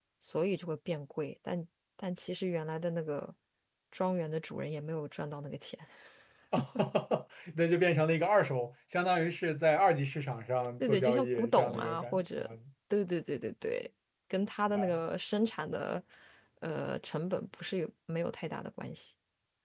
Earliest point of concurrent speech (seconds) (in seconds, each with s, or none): 10.8 s